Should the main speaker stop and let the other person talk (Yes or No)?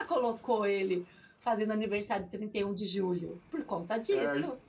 Yes